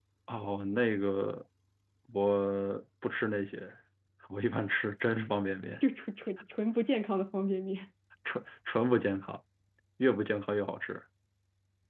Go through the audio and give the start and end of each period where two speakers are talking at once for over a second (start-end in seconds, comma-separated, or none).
none